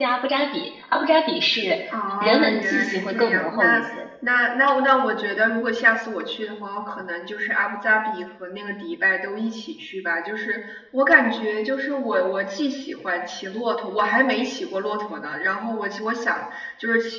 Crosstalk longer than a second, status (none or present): present